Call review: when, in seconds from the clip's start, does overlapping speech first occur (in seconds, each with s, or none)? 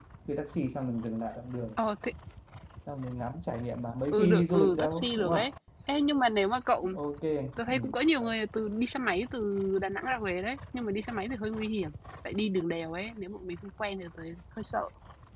4.1 s